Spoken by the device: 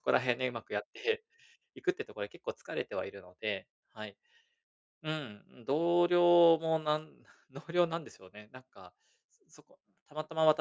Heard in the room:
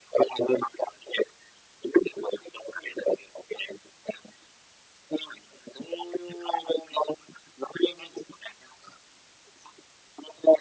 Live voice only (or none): none